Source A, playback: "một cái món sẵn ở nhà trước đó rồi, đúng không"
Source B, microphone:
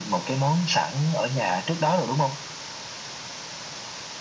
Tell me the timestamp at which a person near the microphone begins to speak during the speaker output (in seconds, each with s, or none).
none